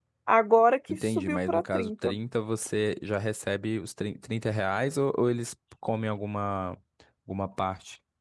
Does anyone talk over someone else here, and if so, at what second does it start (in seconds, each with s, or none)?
0.9 s